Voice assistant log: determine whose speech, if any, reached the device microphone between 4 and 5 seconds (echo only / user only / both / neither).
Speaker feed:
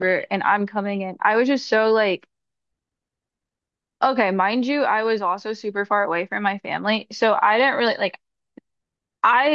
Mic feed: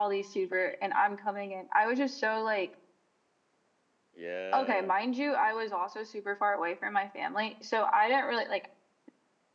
both